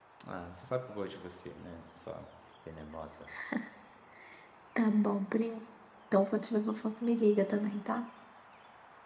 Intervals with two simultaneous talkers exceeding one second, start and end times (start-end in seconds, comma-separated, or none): none